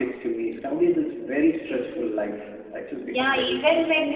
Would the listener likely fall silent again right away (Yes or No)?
No